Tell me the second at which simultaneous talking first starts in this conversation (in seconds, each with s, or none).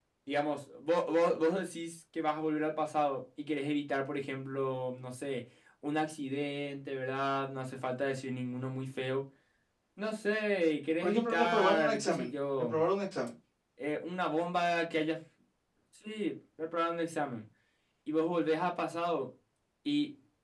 11.0 s